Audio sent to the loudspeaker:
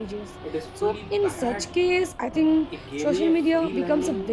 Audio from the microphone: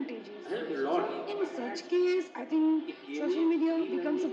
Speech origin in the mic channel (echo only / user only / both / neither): both